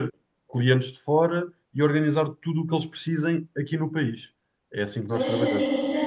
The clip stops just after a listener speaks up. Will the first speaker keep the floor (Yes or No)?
No